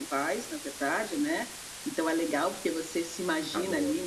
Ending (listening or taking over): listening